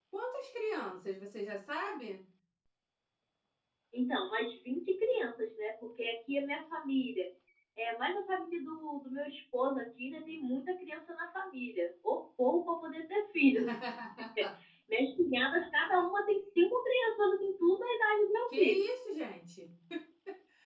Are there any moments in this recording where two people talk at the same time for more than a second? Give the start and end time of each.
none

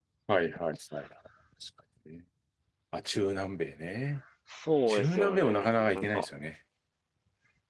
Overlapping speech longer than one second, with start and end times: 4.9-6.2

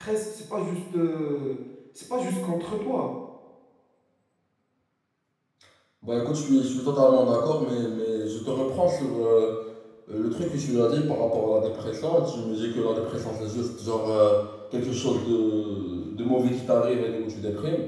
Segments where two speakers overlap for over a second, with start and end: none

